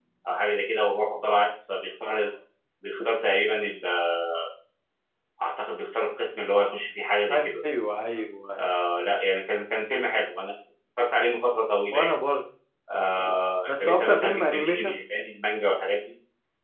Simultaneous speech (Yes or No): Yes